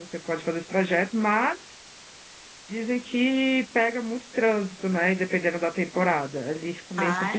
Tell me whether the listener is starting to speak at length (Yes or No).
Yes